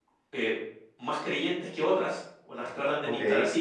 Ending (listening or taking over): listening